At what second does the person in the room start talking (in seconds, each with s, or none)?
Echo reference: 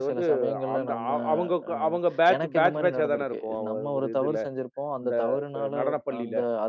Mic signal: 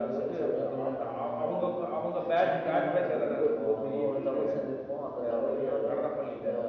3.1 s